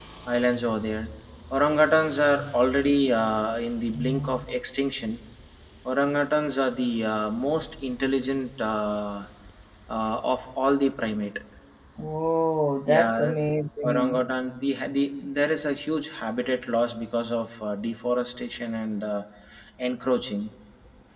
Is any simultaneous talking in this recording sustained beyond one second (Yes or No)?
No